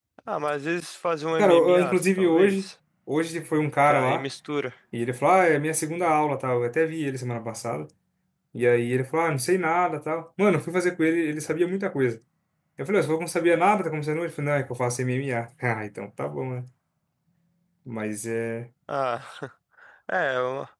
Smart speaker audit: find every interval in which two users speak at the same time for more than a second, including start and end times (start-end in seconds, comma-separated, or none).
1.4-2.7